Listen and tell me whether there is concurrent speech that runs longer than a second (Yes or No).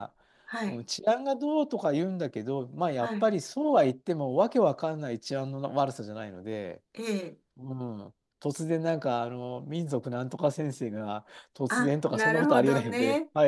Yes